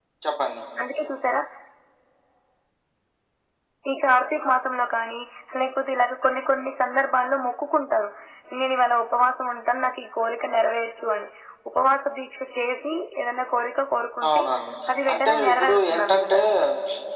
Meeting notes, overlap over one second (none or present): present